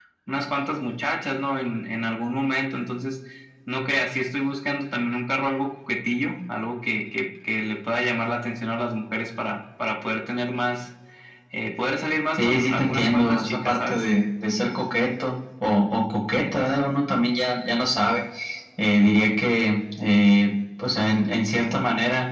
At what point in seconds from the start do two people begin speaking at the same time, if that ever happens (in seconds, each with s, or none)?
12.4 s